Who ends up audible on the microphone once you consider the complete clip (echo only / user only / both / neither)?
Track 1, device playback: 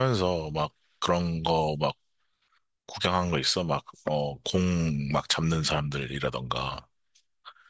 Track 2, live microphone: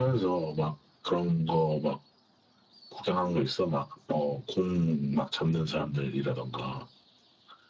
echo only